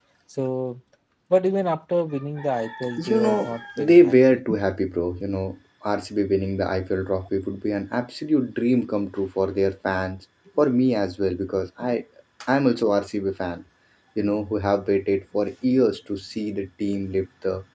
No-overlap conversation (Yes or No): No